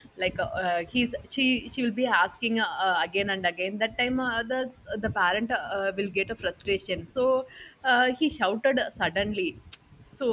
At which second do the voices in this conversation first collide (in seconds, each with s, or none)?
none